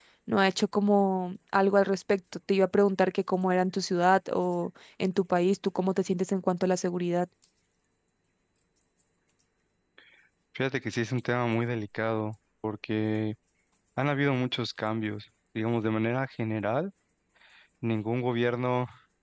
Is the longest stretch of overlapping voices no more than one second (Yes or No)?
Yes